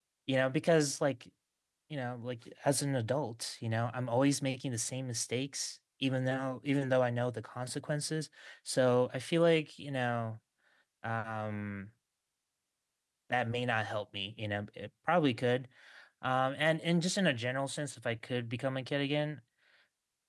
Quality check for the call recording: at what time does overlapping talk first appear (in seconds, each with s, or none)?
none